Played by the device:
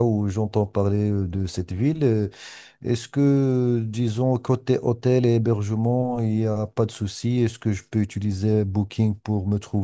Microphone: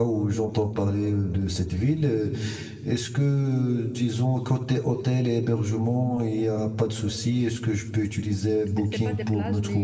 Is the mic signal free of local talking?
No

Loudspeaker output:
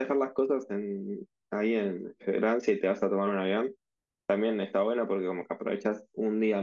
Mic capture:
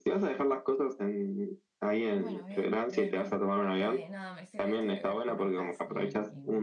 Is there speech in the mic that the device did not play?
Yes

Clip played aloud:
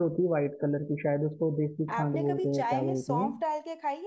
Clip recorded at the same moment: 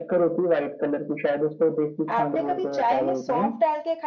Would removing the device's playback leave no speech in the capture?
Yes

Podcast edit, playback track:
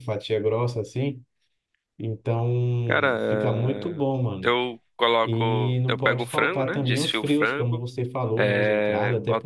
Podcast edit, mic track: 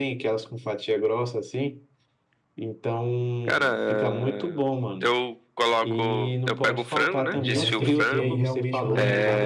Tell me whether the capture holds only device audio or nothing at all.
No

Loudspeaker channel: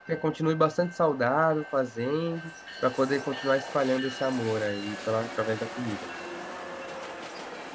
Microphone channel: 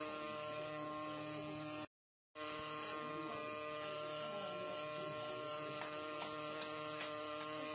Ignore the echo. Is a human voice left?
No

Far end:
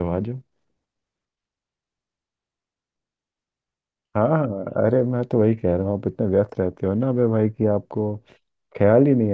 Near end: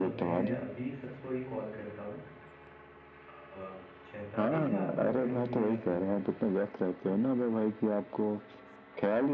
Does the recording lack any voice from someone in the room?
No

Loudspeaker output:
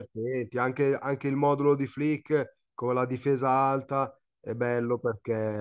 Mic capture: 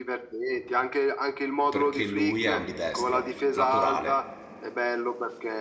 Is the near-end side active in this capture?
Yes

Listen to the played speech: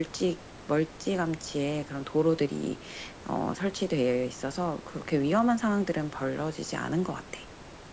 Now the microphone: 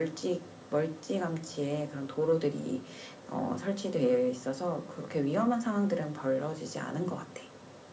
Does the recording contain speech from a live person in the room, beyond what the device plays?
No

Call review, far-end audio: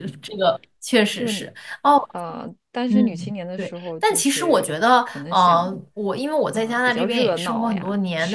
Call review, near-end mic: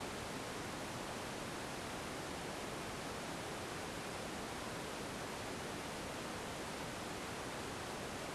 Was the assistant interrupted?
No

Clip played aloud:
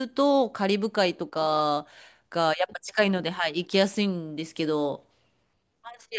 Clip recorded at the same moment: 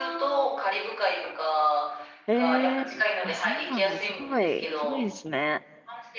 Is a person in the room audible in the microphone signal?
Yes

